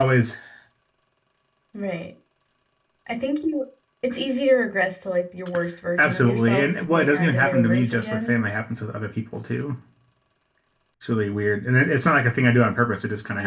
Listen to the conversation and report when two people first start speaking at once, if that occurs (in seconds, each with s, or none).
6.0 s